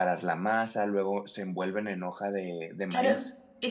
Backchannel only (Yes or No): No